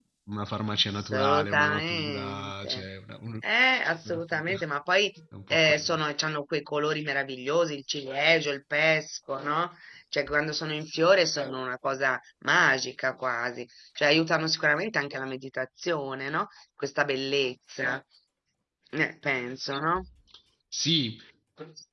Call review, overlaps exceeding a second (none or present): present